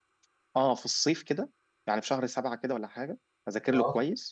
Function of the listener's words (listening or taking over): listening